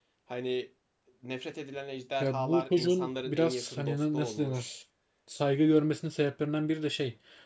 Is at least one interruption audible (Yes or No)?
Yes